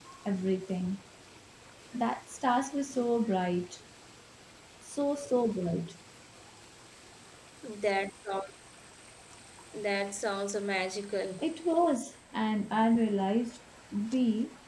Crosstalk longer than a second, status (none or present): none